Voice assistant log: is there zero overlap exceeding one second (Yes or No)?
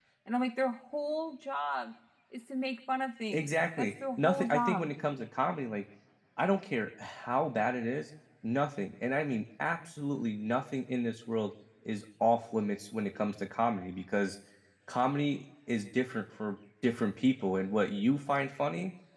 No